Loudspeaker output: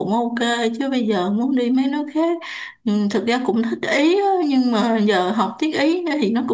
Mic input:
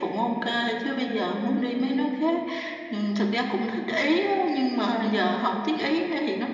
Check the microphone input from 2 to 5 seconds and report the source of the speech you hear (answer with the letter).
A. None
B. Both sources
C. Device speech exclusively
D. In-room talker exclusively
C